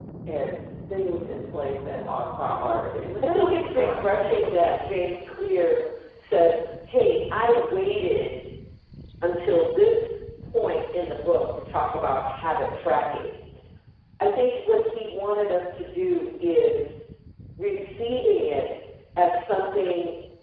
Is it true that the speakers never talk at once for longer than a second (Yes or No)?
No